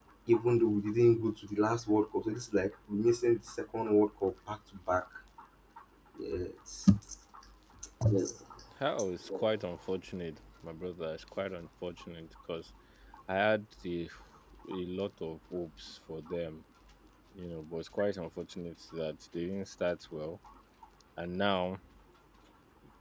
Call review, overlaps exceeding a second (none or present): none